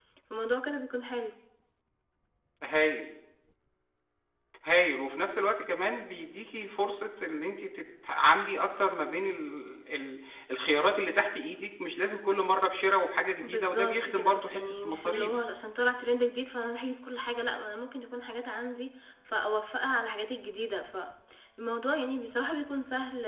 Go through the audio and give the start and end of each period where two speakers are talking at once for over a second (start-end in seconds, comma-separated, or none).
13.4-15.4